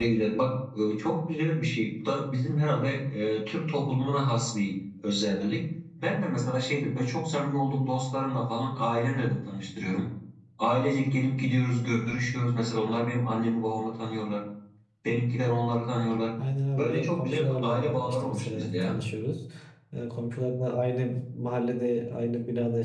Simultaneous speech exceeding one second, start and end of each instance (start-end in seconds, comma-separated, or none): 16.7-19.0